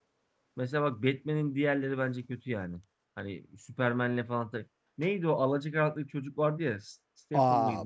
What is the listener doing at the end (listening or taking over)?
taking over